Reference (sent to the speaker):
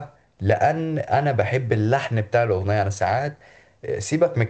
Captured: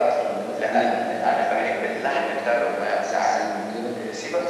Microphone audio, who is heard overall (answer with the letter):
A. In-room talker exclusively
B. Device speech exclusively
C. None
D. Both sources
D